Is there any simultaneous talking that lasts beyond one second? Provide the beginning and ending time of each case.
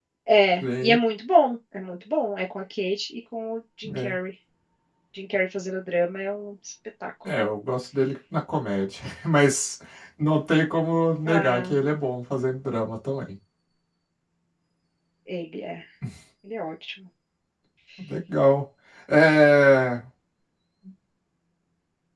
none

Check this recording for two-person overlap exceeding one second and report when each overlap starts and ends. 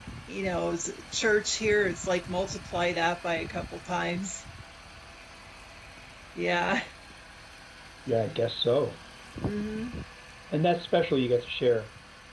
none

